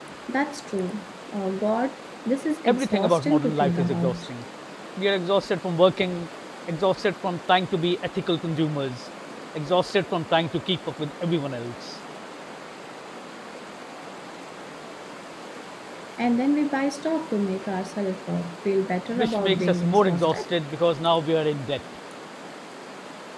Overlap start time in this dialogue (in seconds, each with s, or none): 2.7 s